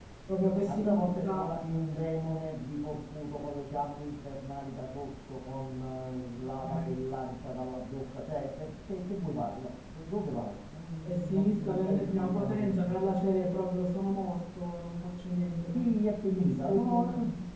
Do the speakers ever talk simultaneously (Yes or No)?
Yes